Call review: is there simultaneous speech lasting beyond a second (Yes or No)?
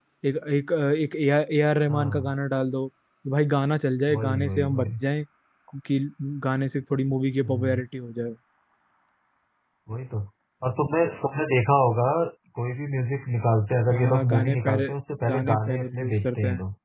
Yes